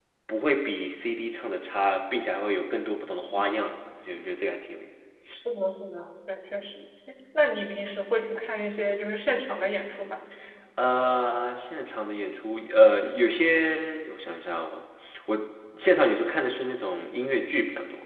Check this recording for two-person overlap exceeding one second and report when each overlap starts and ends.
none

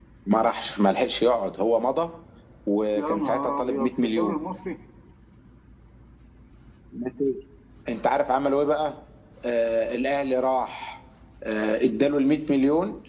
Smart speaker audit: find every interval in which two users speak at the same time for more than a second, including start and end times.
3.0-4.4

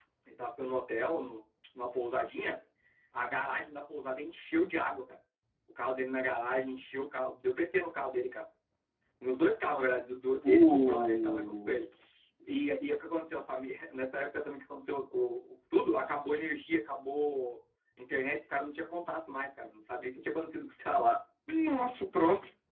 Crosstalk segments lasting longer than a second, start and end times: 10.4-11.8

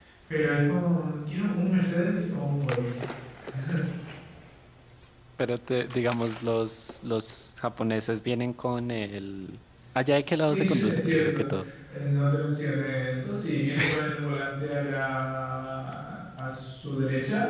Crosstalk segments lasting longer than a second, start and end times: 10.0-11.4

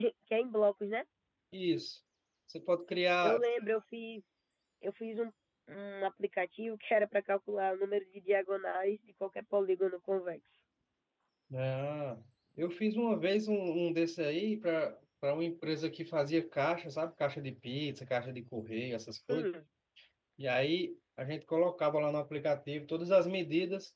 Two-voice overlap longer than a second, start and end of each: none

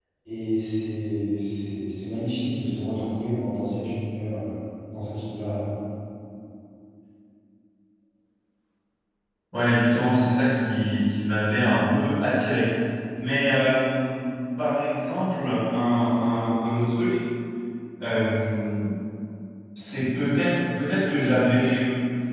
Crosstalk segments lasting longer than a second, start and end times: none

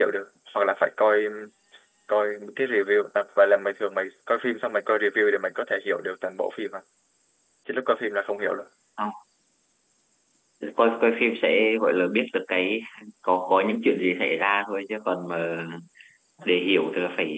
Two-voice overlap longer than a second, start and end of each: none

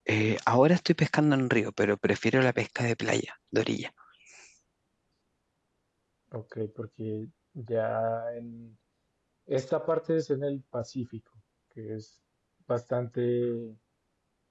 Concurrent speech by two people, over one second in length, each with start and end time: none

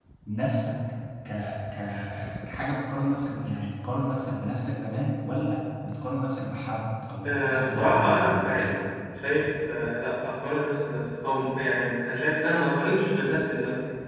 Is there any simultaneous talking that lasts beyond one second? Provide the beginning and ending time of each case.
7.2-8.7

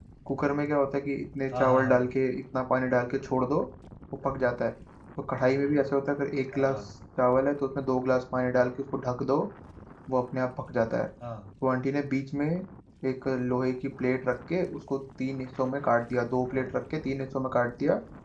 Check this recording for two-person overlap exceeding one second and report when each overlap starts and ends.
none

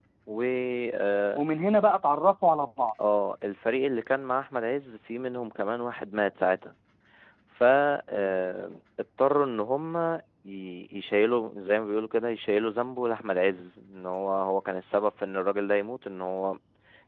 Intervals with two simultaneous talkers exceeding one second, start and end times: none

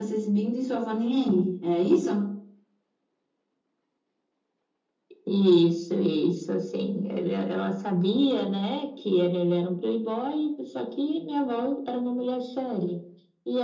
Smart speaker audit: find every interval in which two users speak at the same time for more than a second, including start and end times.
none

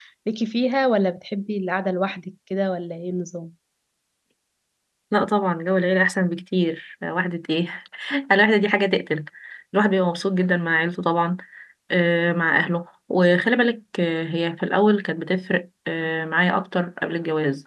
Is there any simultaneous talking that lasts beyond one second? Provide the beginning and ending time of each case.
none

